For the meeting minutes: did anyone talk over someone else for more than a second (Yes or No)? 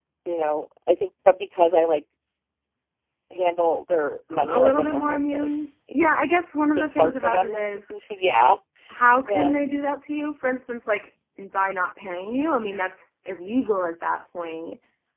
Yes